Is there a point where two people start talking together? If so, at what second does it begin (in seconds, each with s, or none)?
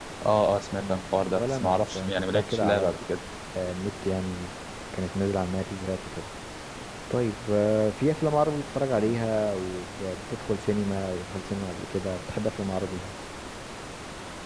0.8 s